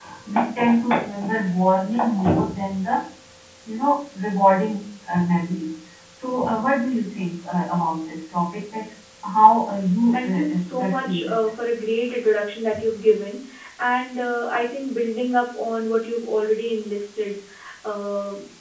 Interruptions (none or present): present